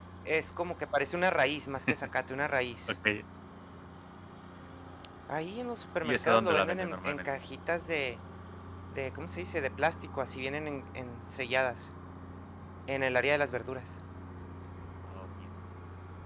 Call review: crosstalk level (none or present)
present